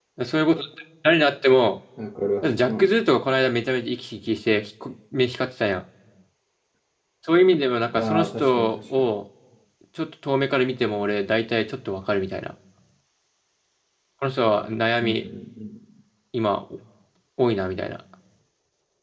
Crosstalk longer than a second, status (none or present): present